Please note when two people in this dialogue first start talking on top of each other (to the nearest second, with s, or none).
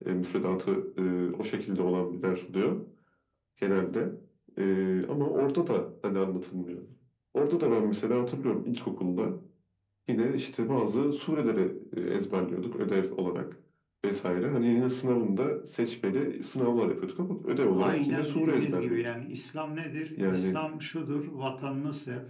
18 s